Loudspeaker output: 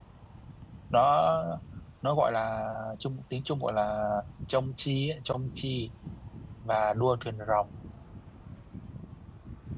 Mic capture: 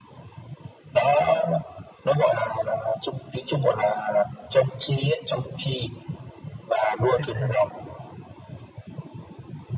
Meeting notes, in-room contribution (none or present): present